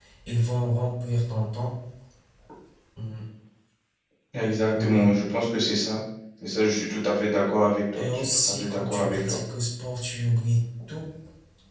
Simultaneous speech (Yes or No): Yes